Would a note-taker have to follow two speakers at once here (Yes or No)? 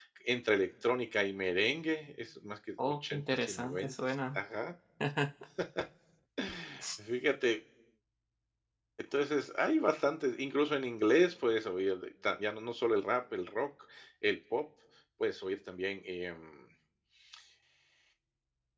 Yes